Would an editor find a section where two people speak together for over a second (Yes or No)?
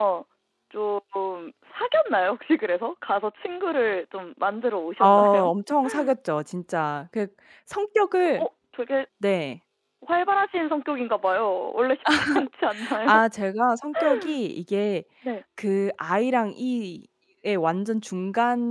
No